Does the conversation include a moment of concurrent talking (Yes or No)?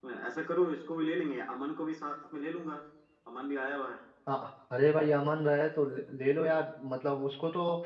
No